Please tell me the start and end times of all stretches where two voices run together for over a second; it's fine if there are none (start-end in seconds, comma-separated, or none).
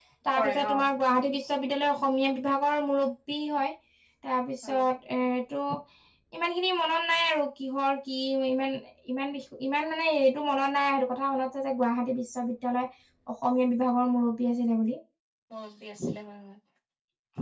none